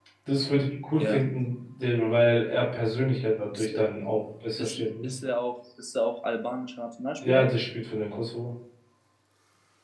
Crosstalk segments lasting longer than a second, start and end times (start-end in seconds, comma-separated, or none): none